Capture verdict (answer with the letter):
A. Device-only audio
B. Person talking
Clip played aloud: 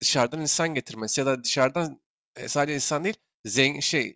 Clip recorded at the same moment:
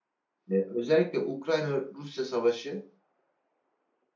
B